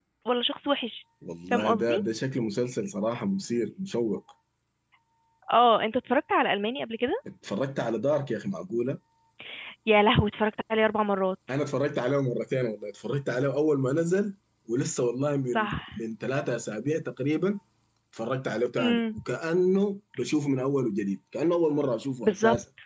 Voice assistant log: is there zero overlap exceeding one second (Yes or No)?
Yes